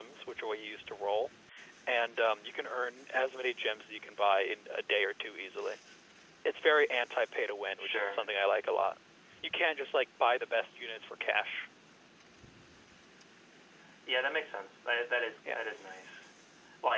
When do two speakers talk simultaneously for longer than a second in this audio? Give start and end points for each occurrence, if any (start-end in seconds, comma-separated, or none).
none